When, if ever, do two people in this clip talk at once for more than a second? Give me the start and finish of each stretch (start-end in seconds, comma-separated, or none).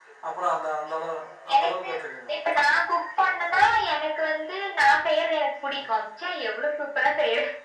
none